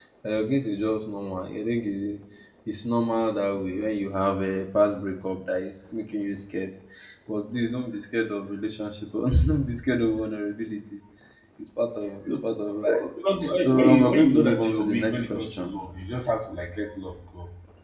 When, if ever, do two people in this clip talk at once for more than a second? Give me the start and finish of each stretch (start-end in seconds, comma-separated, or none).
13.5-15.8